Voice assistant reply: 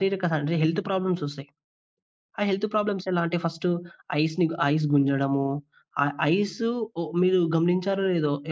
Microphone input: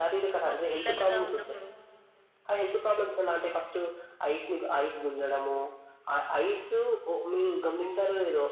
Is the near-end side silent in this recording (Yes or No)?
No